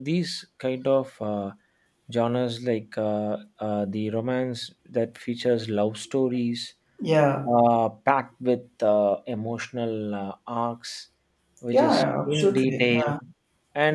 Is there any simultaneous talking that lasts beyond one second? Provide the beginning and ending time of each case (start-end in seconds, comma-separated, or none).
11.7-13.0